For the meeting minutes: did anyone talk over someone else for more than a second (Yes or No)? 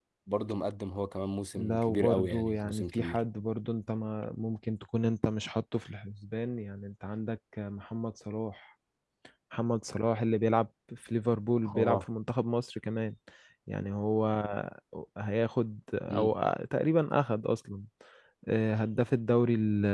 Yes